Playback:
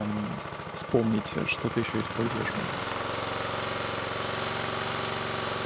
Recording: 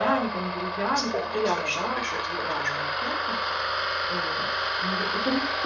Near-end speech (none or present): present